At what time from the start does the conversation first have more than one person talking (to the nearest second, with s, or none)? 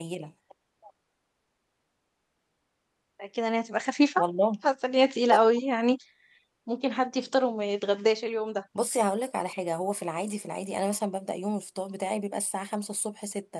none